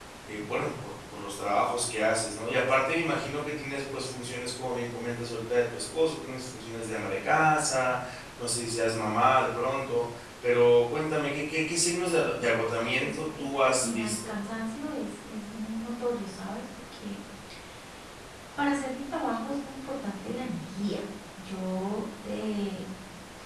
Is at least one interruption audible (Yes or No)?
Yes